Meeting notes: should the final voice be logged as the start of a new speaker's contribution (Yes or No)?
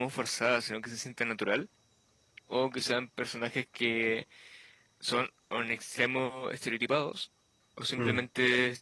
No